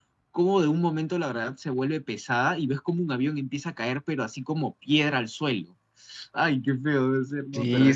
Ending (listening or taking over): taking over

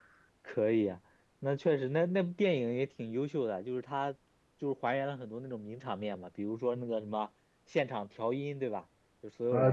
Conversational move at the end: taking over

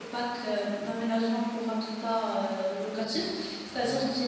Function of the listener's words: listening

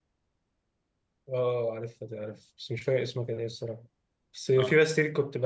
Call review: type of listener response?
listening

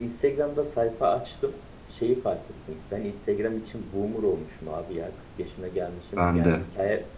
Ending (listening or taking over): listening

